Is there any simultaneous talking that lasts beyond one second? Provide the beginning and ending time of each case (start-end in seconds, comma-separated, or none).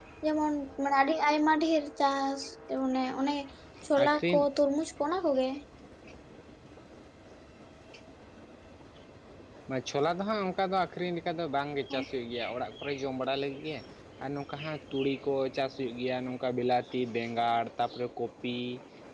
none